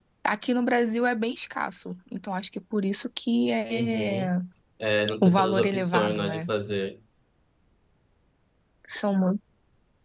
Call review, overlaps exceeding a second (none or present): present